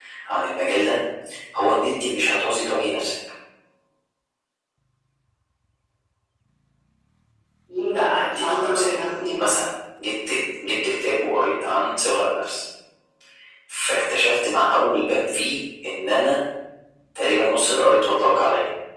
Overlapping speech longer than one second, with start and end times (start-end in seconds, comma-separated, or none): 7.9-9.4